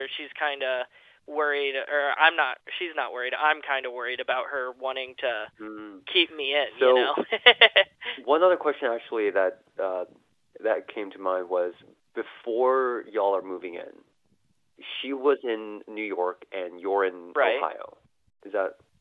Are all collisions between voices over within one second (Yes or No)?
Yes